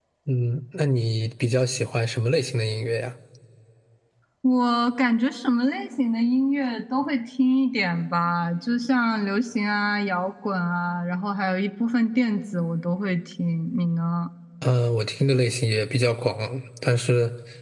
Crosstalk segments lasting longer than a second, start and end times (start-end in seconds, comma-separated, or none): none